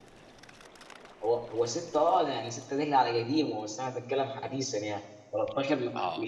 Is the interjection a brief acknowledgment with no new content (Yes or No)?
No